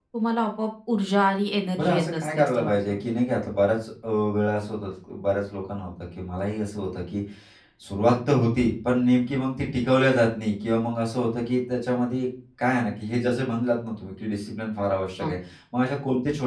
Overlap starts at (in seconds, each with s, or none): 1.8 s